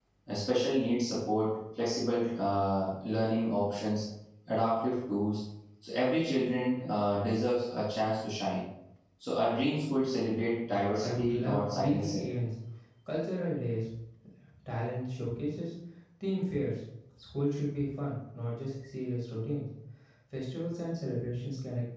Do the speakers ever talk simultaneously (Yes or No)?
Yes